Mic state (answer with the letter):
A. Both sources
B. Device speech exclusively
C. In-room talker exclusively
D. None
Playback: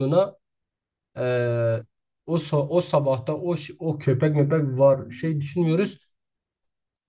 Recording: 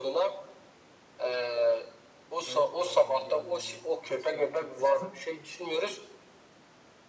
A